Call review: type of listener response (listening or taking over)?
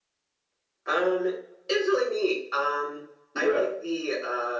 listening